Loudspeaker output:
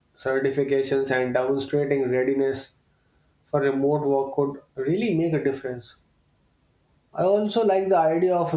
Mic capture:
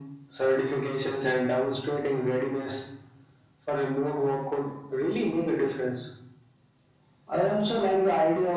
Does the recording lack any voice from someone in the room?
Yes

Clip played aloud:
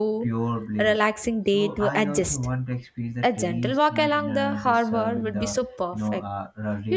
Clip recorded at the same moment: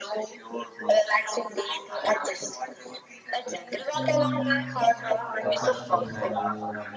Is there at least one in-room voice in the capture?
Yes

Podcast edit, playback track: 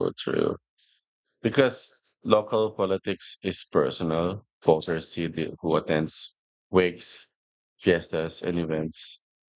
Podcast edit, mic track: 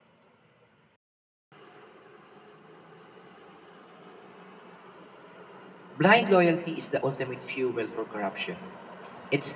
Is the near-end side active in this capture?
Yes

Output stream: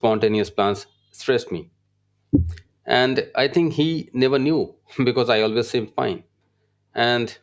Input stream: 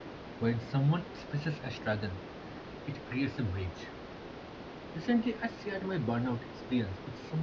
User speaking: Yes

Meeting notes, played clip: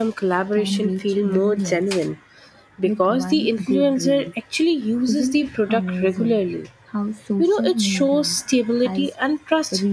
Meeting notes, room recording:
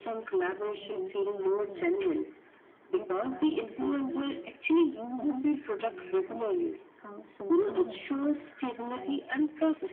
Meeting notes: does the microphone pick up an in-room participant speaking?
No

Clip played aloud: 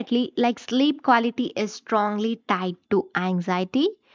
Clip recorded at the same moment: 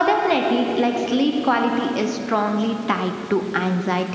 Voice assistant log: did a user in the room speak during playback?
No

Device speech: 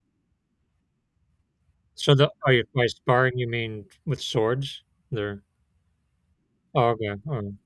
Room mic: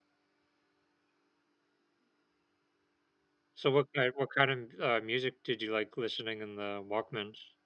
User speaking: Yes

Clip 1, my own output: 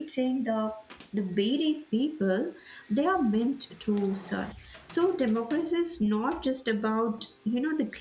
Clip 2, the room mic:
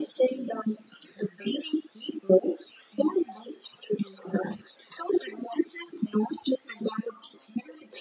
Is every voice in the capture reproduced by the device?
Yes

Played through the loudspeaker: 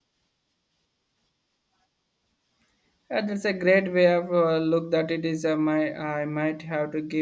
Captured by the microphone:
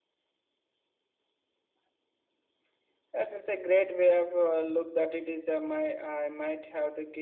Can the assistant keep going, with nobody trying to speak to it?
Yes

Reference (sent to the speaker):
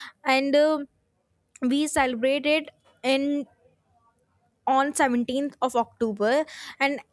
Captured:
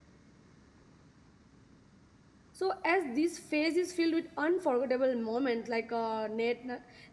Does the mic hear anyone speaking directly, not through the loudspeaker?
Yes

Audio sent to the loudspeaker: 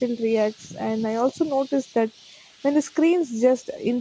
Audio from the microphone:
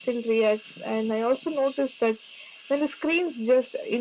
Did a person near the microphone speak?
No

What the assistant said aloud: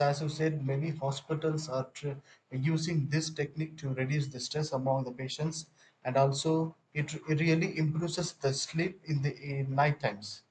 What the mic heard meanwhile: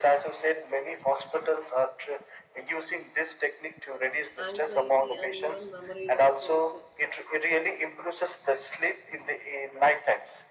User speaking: Yes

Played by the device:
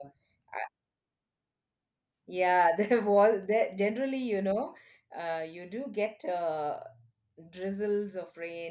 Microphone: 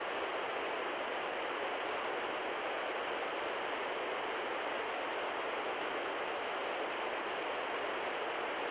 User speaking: No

